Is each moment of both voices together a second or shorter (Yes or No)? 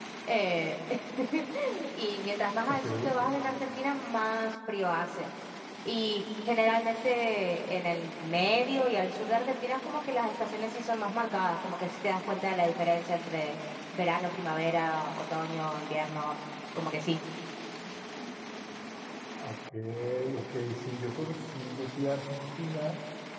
Yes